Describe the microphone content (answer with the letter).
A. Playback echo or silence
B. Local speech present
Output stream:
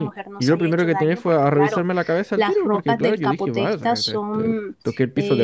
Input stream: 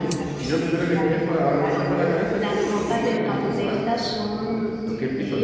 A